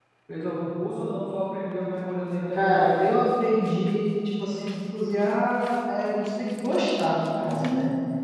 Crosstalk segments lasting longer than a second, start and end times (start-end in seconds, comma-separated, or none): none